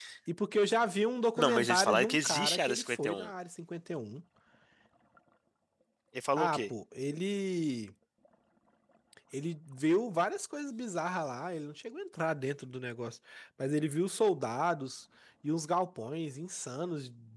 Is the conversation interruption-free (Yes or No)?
No